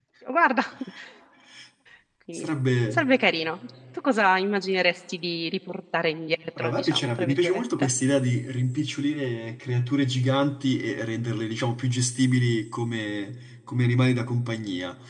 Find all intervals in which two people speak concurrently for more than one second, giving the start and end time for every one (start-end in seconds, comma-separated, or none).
6.6-7.9